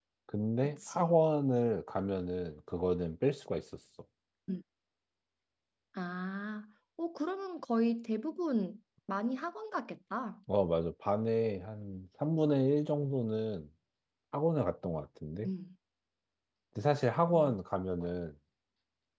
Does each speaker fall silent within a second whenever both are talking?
Yes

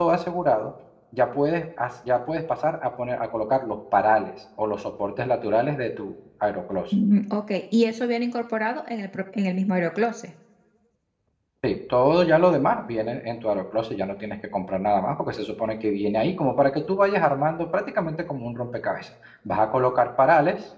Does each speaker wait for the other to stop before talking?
Yes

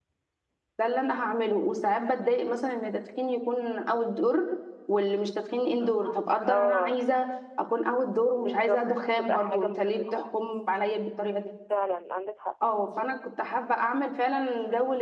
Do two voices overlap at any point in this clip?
Yes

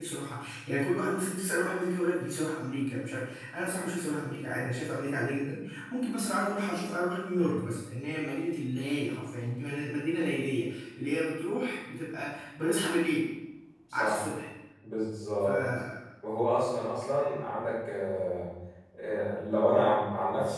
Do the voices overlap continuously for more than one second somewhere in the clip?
No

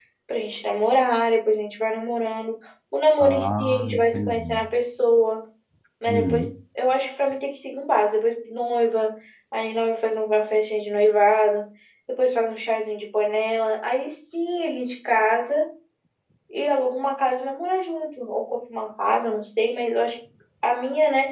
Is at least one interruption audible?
Yes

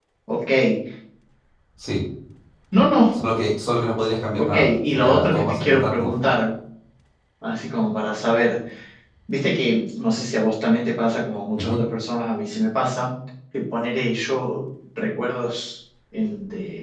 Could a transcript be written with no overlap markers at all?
No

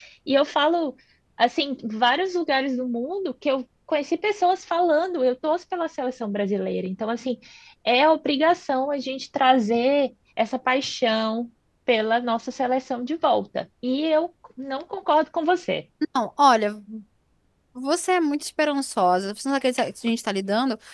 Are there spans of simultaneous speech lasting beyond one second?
No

